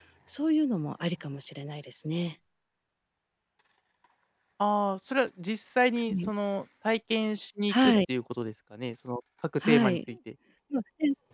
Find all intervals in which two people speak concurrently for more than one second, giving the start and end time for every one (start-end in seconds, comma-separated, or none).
none